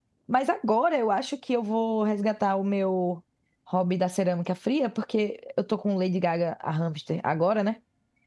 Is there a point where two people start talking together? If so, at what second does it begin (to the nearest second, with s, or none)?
none